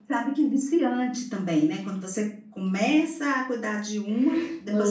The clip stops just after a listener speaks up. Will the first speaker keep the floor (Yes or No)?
No